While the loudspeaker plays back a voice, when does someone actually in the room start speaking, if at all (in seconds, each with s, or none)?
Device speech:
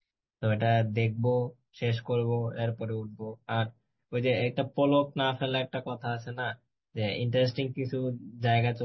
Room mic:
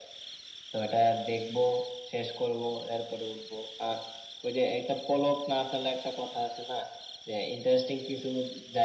none